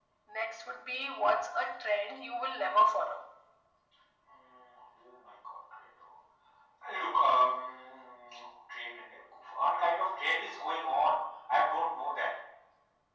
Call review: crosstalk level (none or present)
none